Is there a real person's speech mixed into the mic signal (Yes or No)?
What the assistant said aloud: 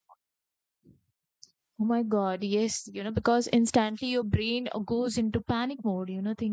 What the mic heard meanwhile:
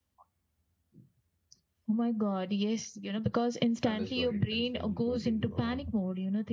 Yes